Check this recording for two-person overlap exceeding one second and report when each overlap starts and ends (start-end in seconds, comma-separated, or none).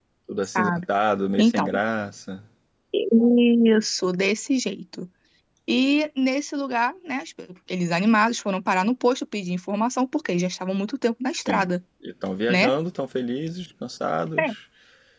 none